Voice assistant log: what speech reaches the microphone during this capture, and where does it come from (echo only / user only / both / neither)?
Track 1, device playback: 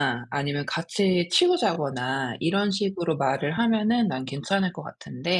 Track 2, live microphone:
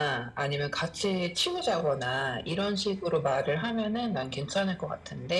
echo only